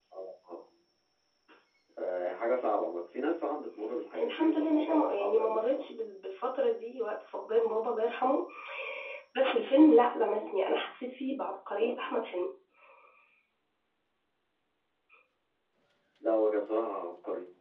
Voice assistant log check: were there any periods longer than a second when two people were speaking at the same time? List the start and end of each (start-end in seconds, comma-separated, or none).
4.2-5.9